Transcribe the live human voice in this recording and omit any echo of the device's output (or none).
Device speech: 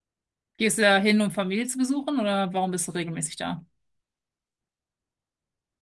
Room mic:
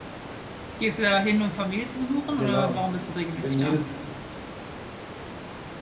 Genau. Ich bin jedes,